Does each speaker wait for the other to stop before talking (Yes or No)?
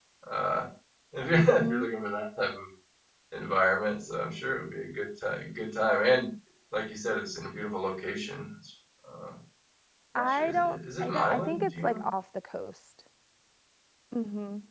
No